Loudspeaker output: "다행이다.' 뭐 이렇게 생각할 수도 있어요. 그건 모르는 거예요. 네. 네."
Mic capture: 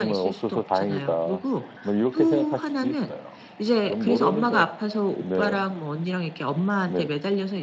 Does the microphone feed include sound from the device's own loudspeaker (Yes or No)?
Yes